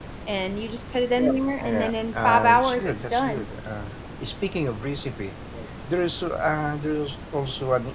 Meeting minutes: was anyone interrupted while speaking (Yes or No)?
Yes